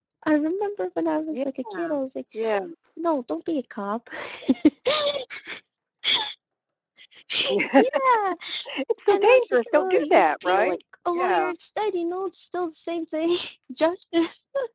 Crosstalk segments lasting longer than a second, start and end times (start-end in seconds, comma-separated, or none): 9.1-10.7